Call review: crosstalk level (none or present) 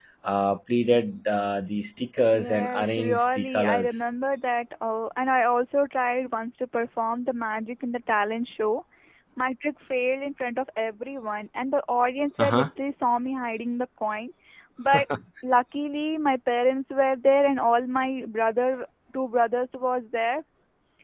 present